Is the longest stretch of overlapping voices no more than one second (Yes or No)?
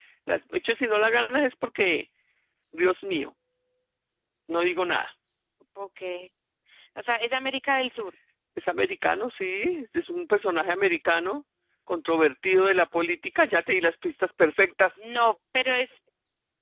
Yes